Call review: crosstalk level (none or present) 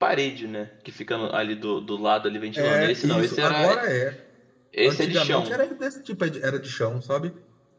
present